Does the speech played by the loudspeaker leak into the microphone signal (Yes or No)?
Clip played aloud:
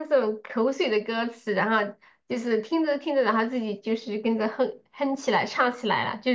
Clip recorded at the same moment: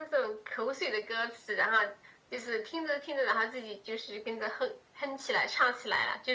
Yes